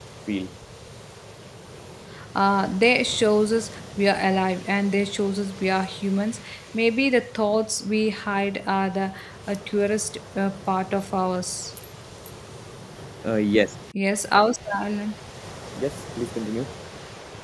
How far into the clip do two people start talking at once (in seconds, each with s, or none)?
none